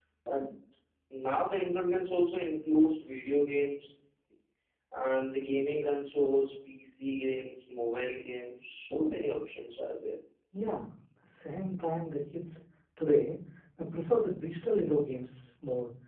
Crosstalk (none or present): none